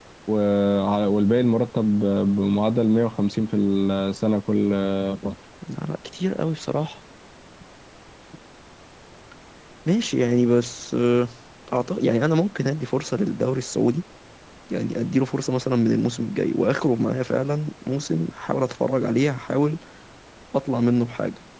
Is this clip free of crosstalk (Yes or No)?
Yes